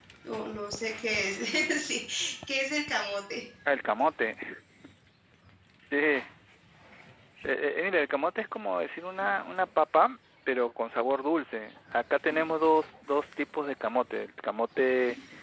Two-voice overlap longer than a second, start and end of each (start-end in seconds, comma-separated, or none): none